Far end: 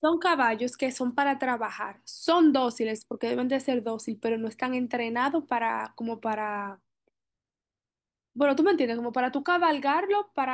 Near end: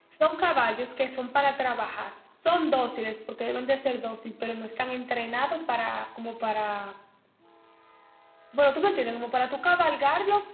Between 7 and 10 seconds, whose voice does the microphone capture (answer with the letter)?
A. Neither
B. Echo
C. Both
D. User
B